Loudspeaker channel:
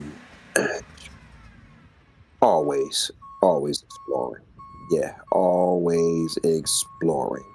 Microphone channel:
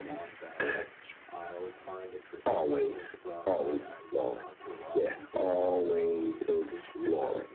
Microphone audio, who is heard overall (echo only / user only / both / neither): both